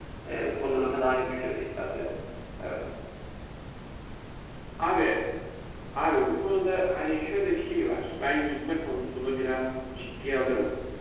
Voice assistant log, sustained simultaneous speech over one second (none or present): none